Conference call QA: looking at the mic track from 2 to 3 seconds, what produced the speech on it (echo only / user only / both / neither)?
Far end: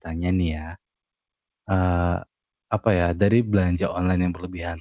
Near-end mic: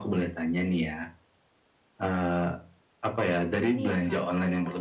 echo only